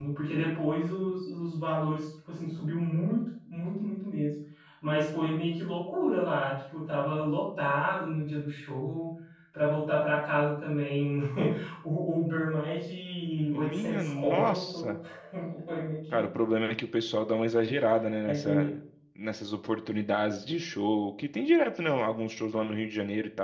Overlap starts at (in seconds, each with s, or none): 13.5 s